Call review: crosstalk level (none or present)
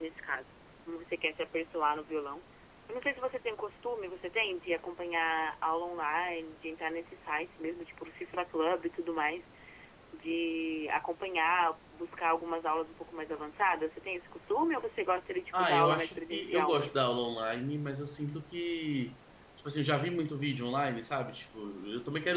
present